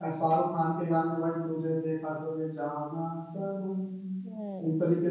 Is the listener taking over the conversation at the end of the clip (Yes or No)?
Yes